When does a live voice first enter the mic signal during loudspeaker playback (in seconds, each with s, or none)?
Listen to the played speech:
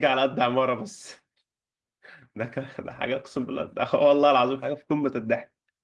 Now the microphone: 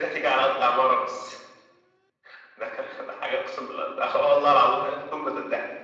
none